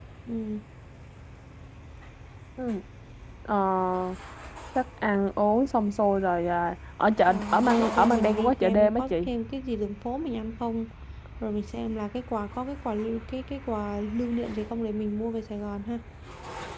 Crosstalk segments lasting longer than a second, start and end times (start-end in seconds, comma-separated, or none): 7.3-9.3